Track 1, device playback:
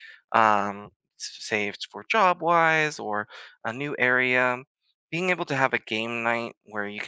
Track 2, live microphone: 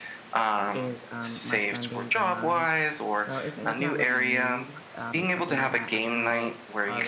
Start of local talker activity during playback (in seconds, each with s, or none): 0.7 s